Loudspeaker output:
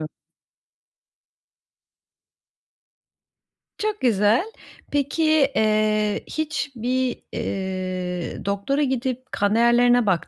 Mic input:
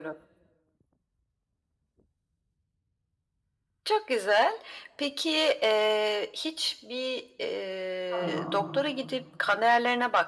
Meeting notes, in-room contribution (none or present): present